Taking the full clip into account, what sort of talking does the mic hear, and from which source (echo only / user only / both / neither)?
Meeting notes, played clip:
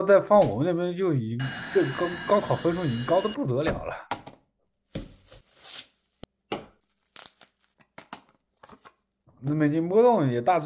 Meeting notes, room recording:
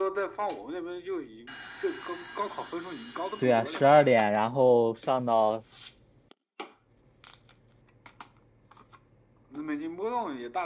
both